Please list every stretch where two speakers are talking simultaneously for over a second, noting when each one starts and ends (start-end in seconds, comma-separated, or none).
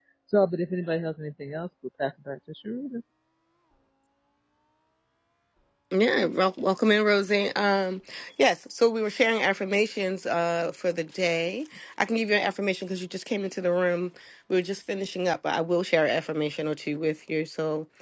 none